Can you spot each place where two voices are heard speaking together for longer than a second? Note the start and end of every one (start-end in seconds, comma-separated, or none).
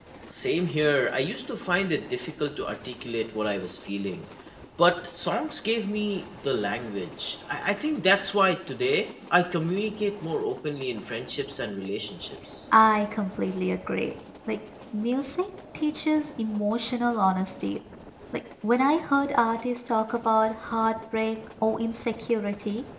none